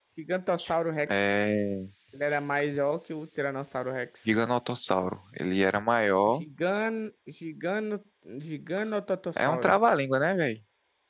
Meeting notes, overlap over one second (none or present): none